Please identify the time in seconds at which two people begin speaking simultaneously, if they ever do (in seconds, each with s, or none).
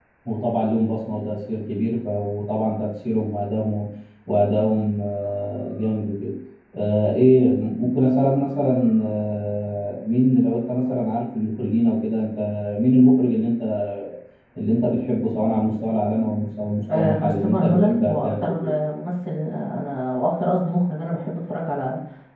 16.9 s